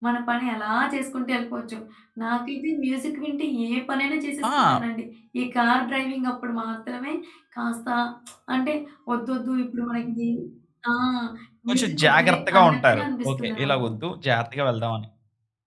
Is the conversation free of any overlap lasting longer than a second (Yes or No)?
No